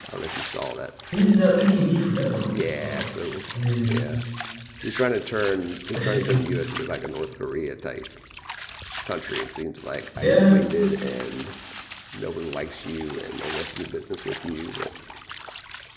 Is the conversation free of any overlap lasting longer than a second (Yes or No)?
Yes